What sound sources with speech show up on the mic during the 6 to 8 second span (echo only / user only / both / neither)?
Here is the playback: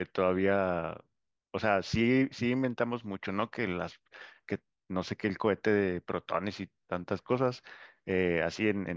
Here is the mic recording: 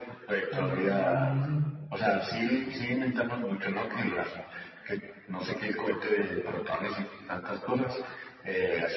echo only